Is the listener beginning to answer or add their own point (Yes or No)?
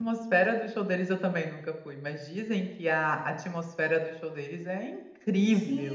Yes